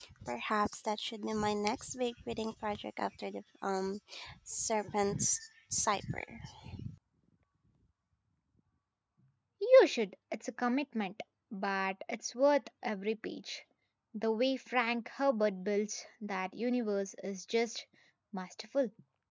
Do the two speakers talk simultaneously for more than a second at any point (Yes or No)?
No